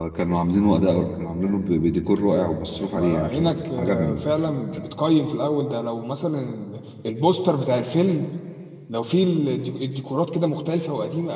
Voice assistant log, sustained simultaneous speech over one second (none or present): present